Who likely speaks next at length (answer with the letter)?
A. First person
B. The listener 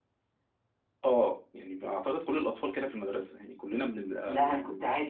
B